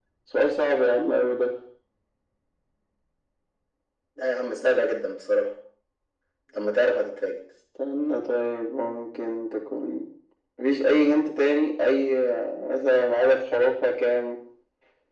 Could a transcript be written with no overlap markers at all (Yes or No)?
Yes